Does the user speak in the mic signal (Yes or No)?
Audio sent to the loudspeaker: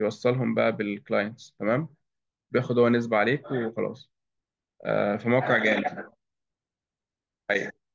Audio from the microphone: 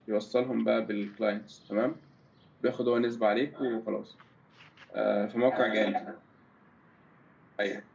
No